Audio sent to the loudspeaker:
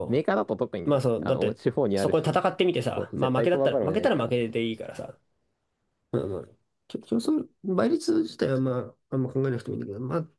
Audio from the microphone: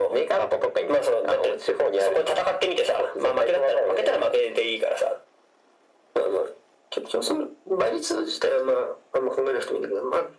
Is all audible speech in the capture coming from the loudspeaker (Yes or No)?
Yes